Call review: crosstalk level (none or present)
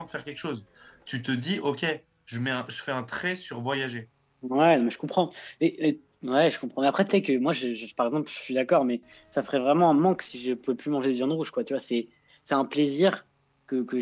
none